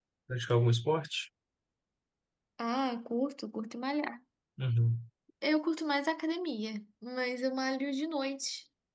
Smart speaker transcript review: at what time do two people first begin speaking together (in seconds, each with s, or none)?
none